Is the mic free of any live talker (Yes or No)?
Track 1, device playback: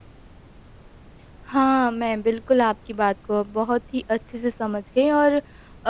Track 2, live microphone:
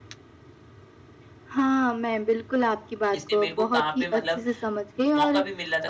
No